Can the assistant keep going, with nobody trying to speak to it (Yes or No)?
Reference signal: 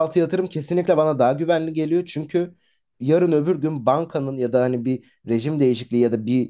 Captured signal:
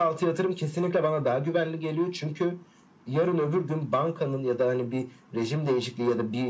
Yes